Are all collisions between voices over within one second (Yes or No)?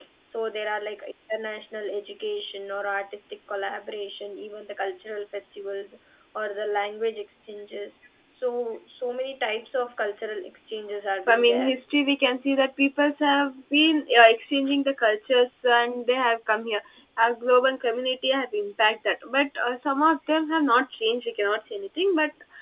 Yes